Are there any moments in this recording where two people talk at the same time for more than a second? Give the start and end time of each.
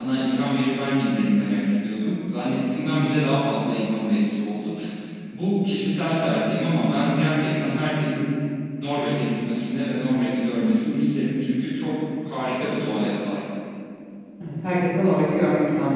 none

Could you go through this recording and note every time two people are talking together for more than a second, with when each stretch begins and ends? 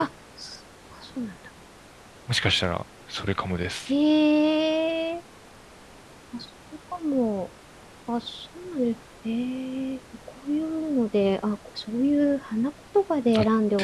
none

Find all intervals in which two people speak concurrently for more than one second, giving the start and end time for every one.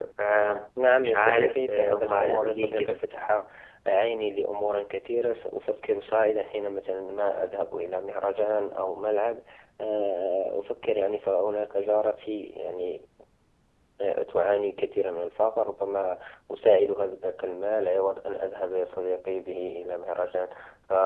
1.0-3.0

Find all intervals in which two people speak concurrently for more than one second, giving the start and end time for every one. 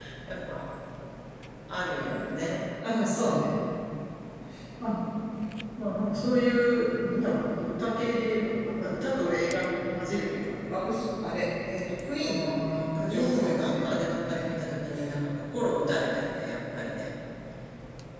12.1-14.7

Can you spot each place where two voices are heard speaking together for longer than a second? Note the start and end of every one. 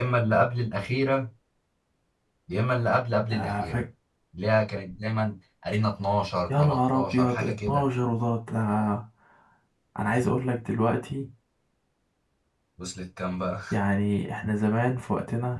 6.5-7.9

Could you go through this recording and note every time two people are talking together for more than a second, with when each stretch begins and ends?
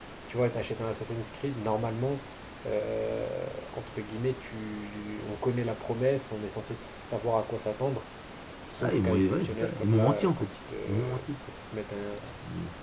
8.8-10.5

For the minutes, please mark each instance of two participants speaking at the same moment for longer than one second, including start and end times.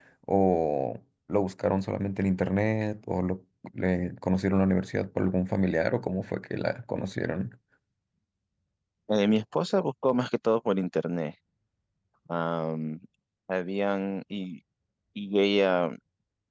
none

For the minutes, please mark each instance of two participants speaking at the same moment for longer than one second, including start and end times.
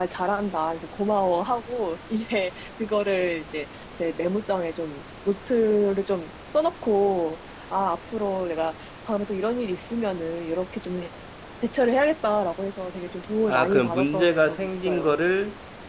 13.5-15.1

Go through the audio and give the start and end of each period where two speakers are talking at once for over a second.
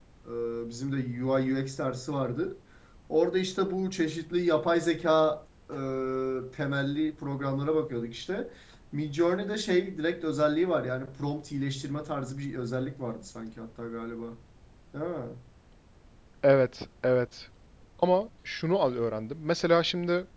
none

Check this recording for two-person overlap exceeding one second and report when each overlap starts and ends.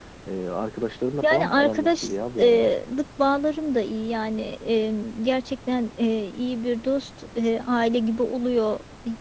1.2-2.7

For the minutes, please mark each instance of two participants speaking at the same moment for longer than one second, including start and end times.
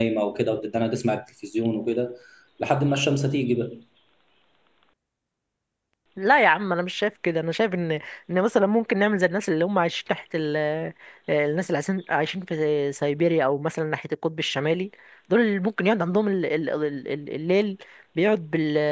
none

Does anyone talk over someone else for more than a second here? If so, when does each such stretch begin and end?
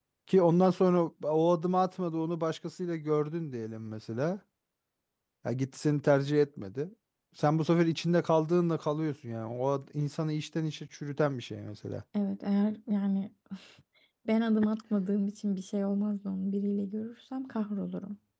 none

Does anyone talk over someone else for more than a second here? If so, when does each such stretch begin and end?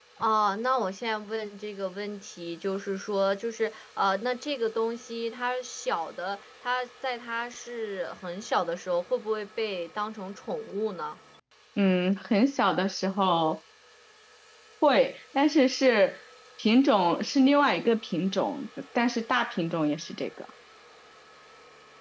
none

